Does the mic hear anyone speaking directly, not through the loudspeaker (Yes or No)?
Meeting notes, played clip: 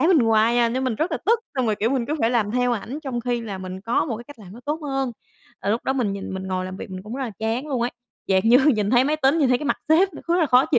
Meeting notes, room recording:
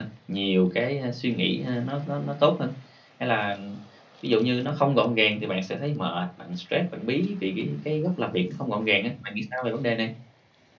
Yes